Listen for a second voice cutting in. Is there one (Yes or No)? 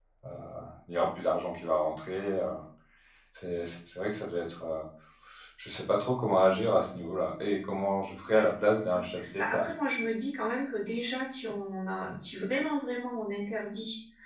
Yes